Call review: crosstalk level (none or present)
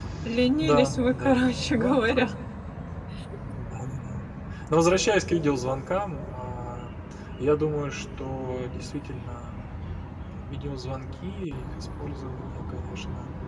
present